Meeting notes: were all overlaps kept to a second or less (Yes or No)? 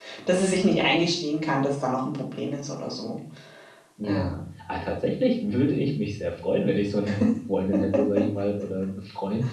Yes